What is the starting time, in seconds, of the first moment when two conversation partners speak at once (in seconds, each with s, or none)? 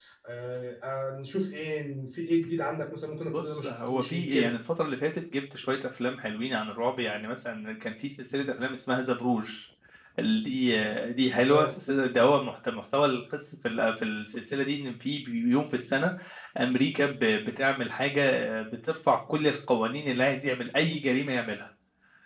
3.3 s